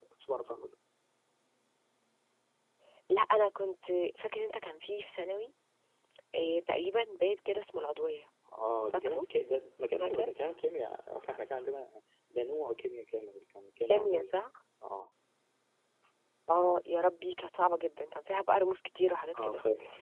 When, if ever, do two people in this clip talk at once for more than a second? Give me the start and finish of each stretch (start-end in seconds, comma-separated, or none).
none